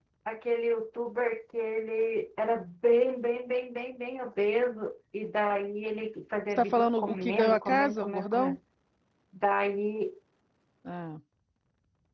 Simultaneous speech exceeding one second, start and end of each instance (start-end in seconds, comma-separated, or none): 6.5-8.6